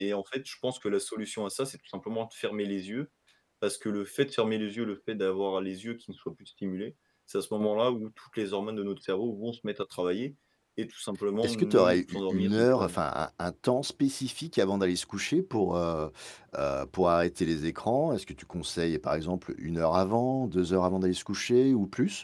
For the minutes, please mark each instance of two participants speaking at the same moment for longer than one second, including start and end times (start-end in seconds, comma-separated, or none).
11.4-13.0